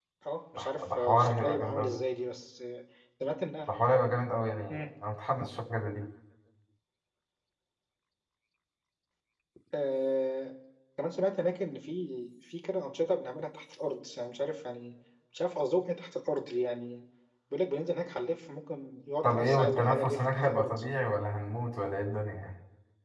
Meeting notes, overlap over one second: present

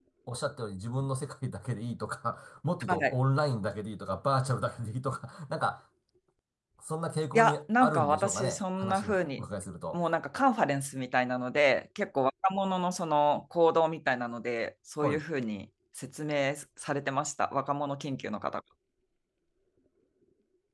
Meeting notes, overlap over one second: present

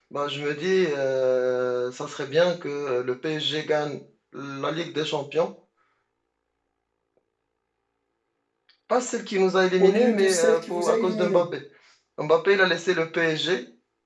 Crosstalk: present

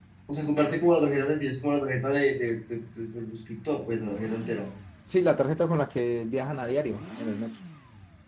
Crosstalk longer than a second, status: none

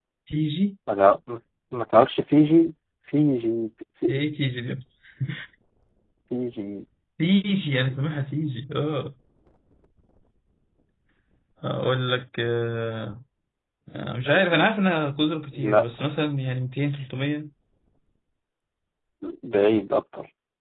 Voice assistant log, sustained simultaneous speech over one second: none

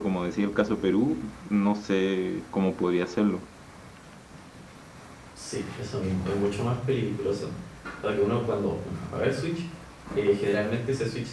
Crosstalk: none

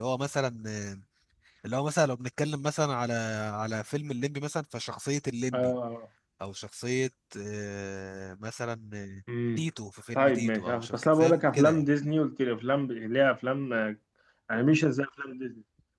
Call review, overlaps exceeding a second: present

